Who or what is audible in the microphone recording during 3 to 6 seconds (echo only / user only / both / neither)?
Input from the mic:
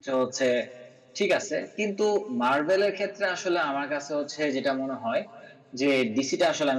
user only